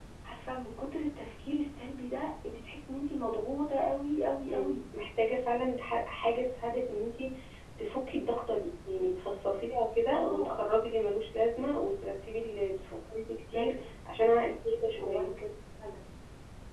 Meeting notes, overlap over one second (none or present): none